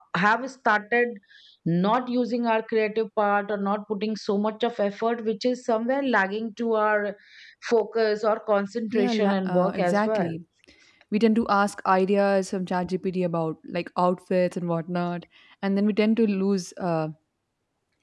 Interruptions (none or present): present